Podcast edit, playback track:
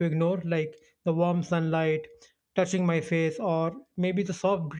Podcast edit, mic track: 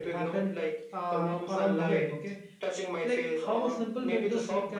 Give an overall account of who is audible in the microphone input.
both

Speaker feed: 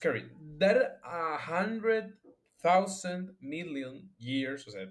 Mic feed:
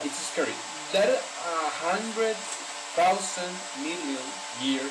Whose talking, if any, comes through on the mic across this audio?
echo only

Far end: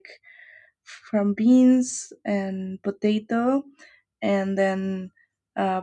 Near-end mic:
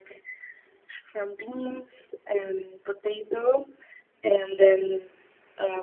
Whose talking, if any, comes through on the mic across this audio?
echo only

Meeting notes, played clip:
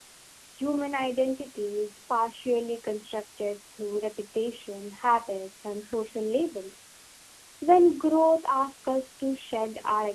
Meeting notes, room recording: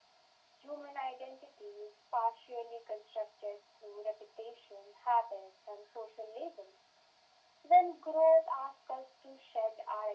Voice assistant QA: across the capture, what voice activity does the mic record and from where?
echo only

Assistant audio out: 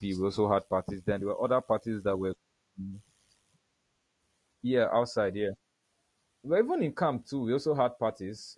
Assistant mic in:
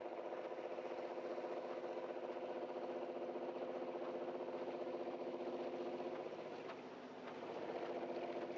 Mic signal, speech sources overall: neither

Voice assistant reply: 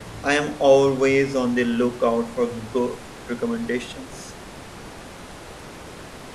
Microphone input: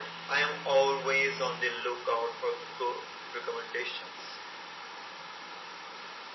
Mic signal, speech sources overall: echo only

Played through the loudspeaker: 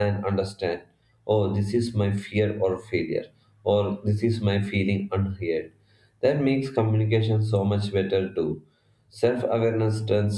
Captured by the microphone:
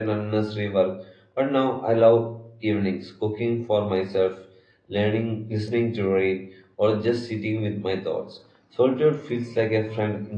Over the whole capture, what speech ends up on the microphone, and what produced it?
user only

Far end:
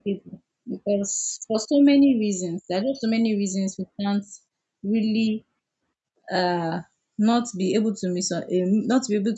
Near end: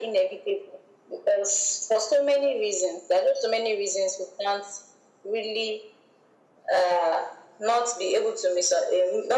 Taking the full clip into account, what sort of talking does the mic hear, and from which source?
echo only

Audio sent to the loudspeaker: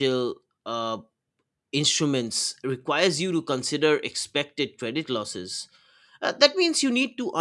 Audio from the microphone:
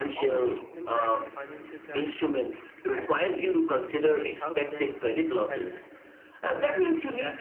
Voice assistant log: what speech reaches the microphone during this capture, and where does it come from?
both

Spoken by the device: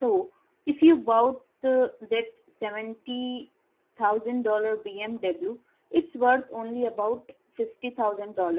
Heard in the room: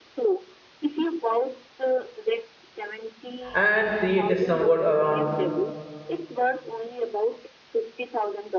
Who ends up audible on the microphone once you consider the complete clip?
both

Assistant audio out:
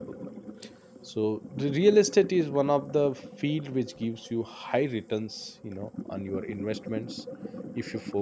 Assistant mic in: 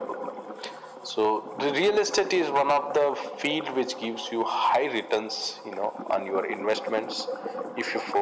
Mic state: echo only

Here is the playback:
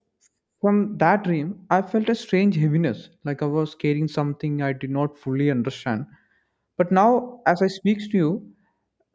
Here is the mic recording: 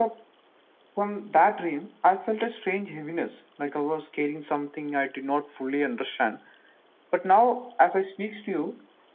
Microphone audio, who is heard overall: echo only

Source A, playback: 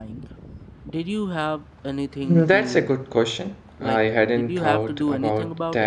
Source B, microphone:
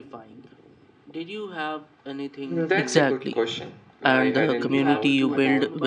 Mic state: both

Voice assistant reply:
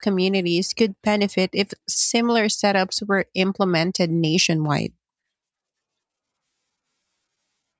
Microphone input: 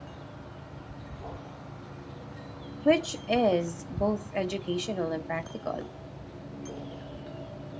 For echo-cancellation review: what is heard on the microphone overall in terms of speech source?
user only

